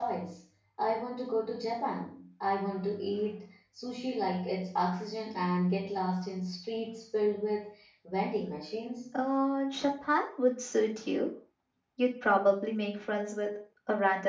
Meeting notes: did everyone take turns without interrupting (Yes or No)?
Yes